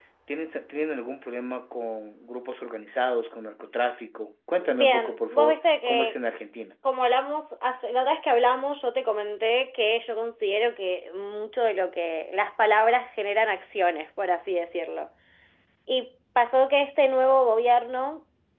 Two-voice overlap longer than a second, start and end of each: 4.6-6.2

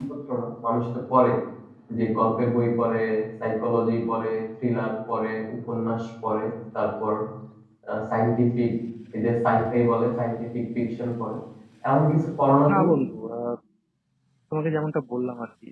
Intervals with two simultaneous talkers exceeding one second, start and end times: none

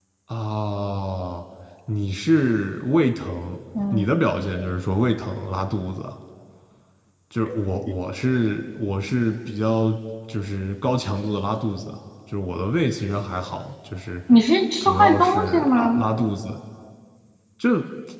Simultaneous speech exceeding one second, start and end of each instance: 14.8-16.0

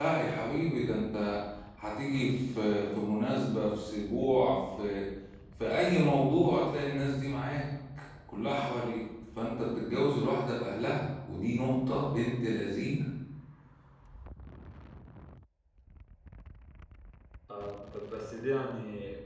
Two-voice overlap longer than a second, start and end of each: none

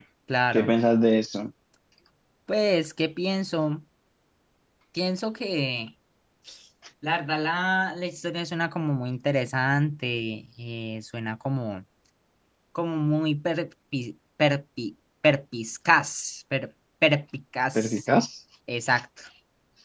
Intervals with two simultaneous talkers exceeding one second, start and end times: none

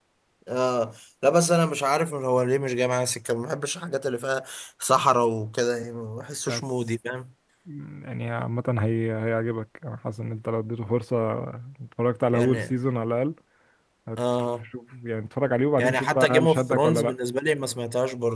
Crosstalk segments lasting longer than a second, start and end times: 15.8-17.1

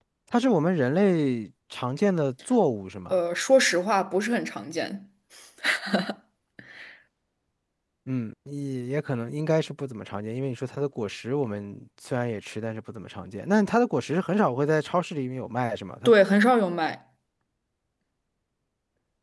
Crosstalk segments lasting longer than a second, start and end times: none

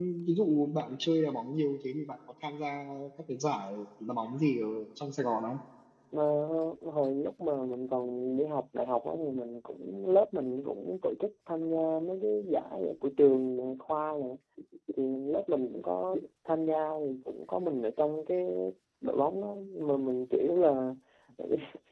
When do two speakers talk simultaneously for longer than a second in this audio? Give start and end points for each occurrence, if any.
none

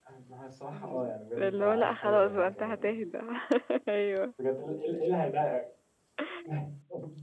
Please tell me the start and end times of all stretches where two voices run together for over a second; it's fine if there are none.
1.4-3.0

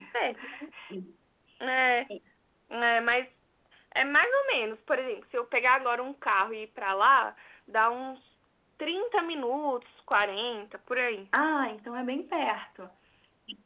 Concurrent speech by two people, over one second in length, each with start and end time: none

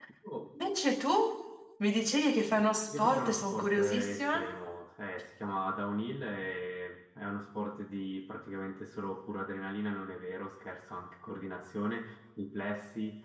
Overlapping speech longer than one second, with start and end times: 3.0-4.4

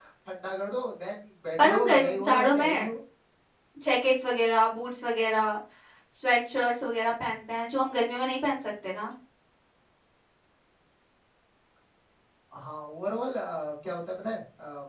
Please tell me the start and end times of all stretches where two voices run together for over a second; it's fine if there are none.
1.6-2.9

